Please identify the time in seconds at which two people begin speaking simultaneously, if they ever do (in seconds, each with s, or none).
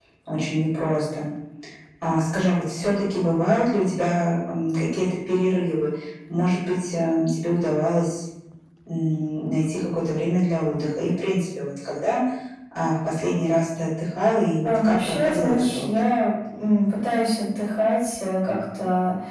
14.6 s